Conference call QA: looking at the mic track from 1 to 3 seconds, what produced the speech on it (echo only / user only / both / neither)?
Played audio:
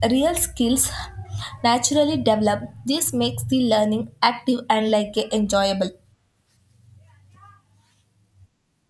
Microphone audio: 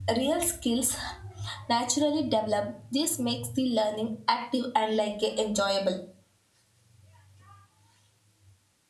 echo only